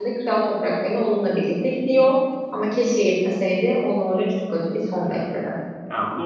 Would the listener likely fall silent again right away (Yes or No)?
No